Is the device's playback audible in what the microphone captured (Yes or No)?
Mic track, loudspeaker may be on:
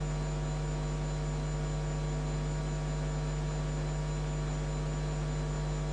No